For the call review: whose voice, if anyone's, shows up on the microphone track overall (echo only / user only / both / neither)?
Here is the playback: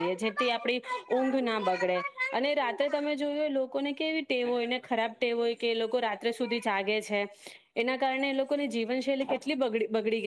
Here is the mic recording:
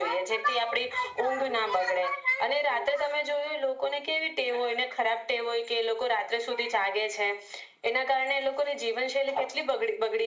echo only